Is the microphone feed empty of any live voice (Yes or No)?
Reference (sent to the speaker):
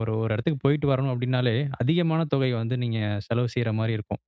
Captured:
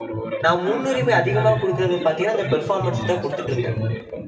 No